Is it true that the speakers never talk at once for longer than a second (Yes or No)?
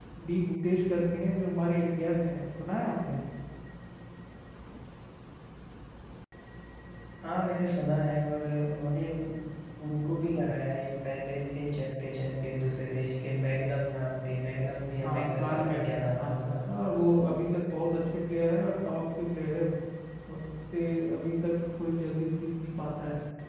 No